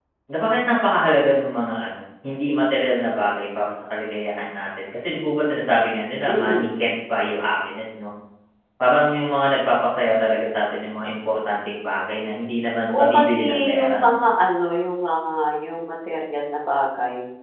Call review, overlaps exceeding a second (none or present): present